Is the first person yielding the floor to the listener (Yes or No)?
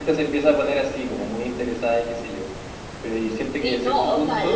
Yes